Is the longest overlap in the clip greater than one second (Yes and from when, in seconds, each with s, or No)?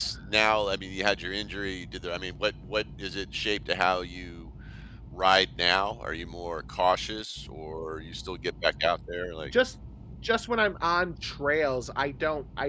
No